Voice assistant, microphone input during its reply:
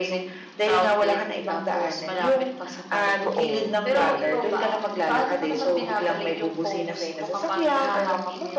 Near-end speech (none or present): present